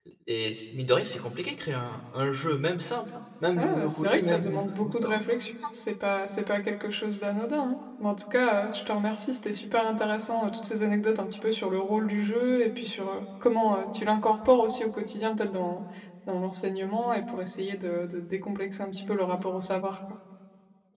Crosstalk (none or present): present